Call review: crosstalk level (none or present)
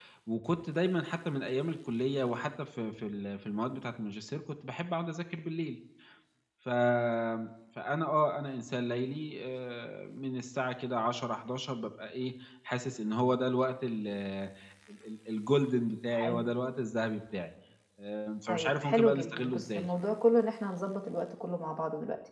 present